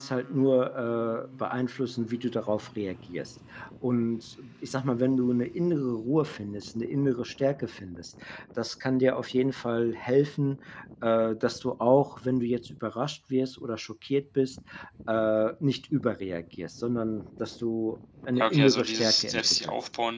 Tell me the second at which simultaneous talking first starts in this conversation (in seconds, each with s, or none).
18.4 s